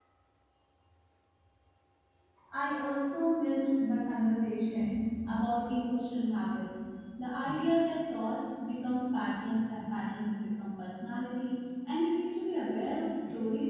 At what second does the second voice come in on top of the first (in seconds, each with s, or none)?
none